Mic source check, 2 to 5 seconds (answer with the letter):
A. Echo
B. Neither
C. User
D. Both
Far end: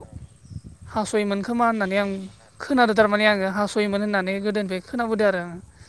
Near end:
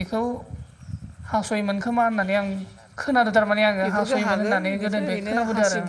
D